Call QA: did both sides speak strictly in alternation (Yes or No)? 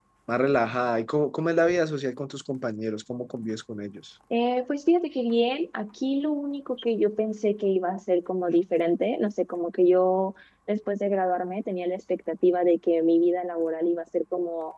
Yes